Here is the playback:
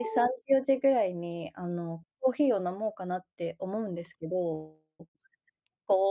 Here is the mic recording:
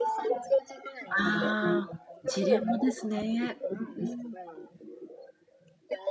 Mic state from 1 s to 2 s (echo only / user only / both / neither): both